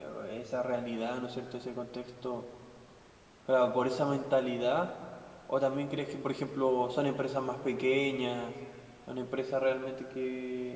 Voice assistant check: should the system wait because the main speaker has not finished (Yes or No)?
Yes